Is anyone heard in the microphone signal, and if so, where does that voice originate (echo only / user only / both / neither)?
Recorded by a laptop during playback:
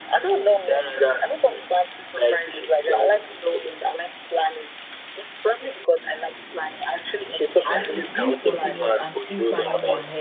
both